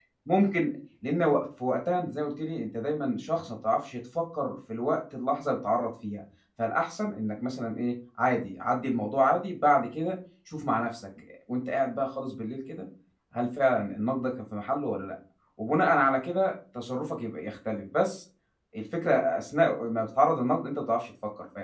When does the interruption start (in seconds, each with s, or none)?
none